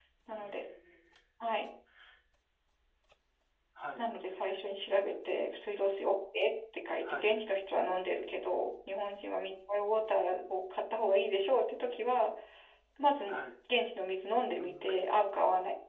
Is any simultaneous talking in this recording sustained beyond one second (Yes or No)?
No